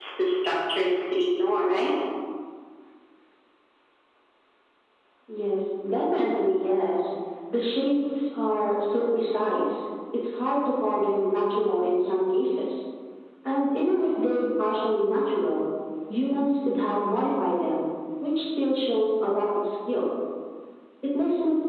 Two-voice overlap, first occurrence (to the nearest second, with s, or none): none